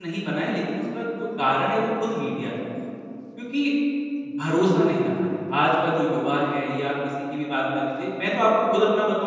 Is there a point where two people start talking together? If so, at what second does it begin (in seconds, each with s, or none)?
none